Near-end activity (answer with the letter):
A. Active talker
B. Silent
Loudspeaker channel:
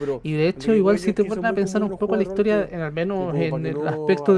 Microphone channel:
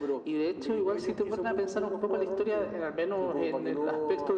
B